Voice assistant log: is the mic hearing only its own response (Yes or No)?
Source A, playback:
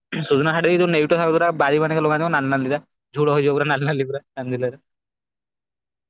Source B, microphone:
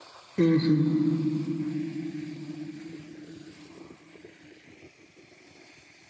No